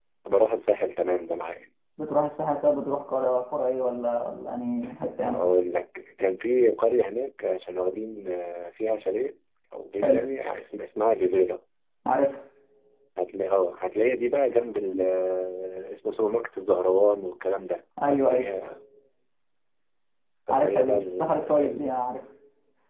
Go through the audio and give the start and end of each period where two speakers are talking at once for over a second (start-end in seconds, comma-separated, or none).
20.5-21.9